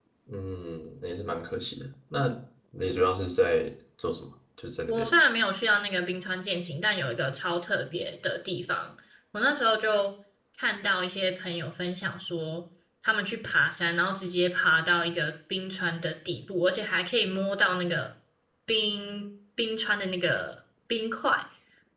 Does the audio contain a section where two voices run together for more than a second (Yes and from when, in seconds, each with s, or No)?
No